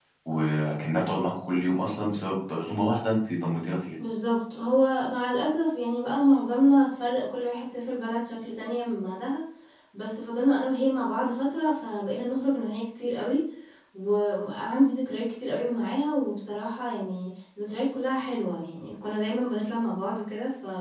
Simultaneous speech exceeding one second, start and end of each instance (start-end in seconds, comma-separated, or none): none